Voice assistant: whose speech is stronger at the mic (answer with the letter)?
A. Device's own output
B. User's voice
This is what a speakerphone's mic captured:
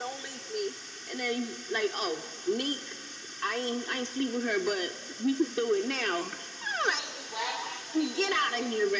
A